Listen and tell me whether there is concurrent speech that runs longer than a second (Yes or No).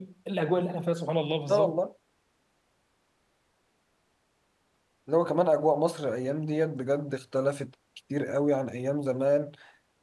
No